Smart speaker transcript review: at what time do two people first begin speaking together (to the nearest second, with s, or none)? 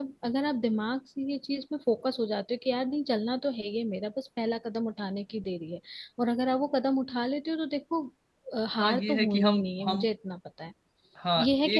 9 s